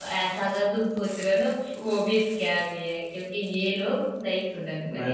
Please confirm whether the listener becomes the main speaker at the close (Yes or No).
Yes